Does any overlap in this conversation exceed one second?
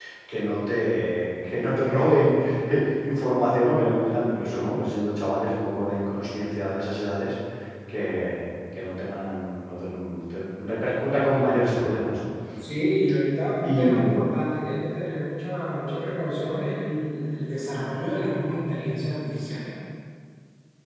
No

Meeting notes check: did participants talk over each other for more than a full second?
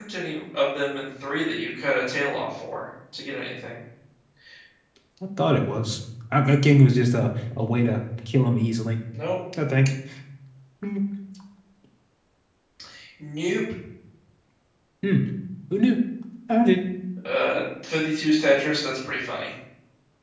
No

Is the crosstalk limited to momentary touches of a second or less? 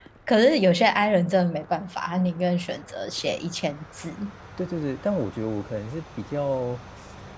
Yes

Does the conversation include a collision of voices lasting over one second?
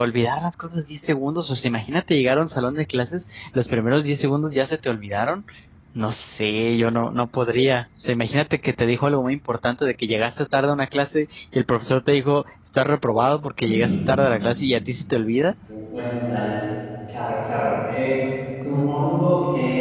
No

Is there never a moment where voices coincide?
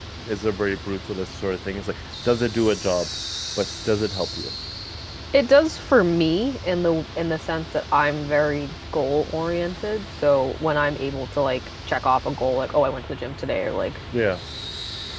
Yes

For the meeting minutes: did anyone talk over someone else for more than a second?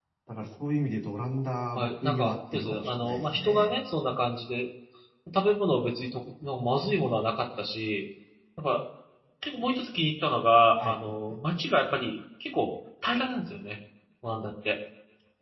Yes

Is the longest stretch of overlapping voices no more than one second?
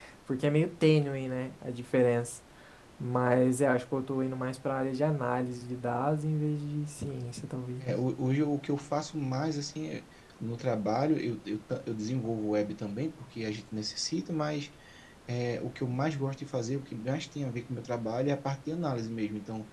Yes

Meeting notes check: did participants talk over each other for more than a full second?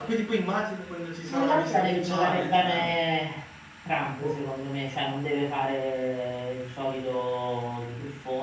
Yes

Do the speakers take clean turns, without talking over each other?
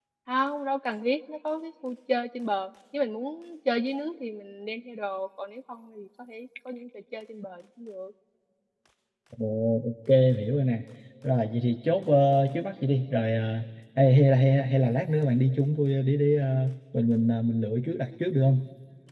Yes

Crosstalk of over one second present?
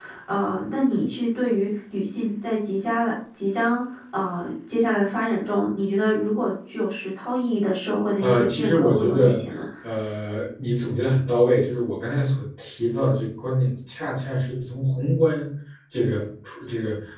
Yes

